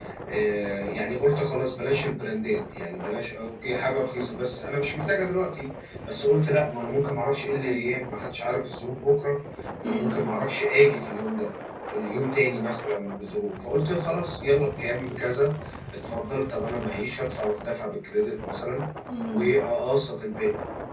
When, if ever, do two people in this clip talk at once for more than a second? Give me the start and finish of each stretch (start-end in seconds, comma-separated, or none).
none